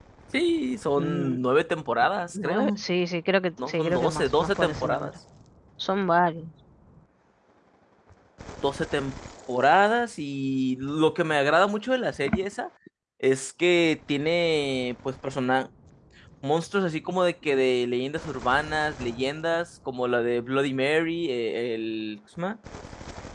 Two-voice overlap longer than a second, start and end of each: 3.7-5.1

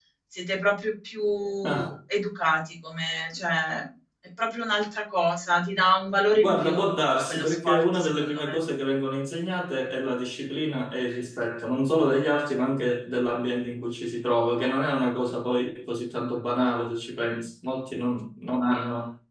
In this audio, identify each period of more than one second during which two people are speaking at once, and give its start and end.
7.3-8.6

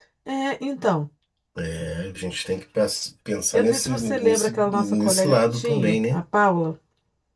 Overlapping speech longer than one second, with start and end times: 3.5-6.2

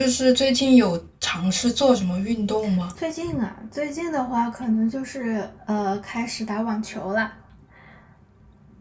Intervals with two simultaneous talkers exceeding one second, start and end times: none

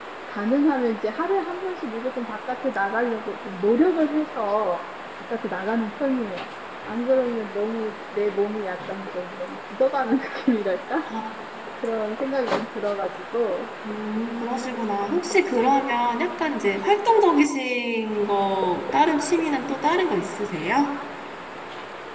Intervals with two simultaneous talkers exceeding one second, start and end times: none

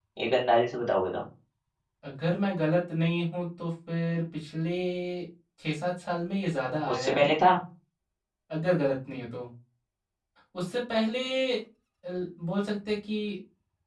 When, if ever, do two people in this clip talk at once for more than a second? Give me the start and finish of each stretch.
none

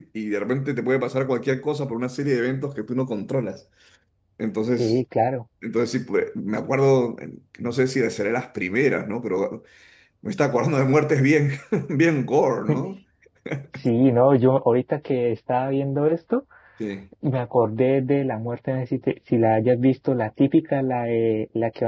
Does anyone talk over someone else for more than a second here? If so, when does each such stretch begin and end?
none

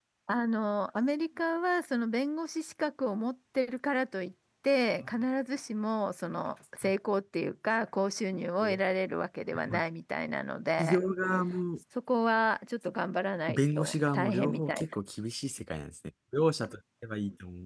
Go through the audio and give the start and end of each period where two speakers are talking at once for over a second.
13.5-14.8

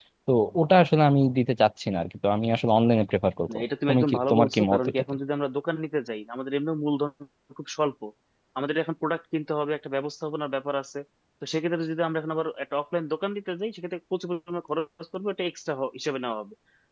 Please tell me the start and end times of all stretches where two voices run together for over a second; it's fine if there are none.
3.5-5.0

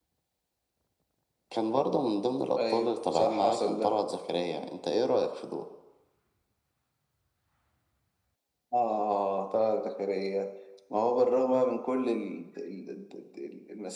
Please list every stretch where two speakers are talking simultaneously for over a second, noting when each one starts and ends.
2.7-3.9

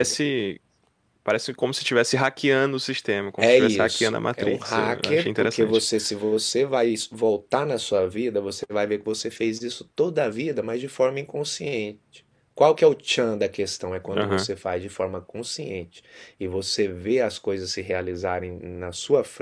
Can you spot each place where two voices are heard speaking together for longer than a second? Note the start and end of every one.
3.4-5.8

